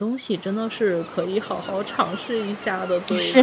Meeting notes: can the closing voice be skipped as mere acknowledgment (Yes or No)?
No